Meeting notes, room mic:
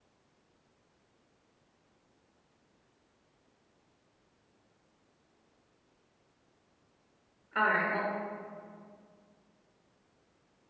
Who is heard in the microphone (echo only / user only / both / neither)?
user only